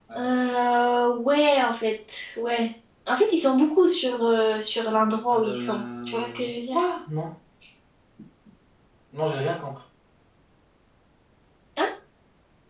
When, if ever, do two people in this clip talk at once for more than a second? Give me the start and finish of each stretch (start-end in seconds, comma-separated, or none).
5.3-6.8